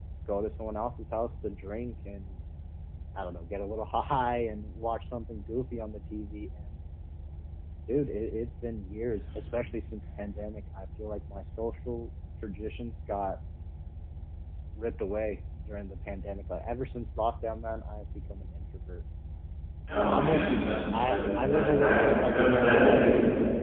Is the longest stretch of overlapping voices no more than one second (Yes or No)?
No